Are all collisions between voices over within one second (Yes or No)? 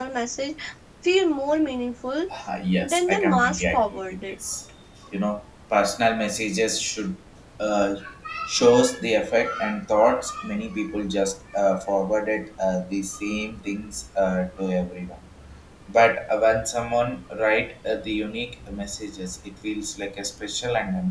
No